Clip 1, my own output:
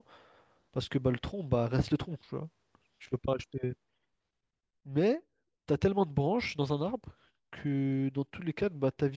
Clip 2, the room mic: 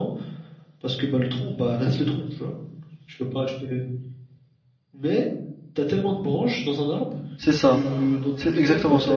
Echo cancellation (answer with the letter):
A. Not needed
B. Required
B